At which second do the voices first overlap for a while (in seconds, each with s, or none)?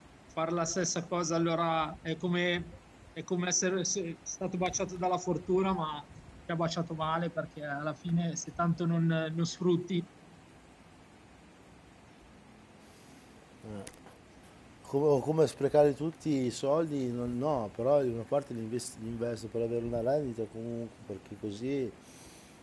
none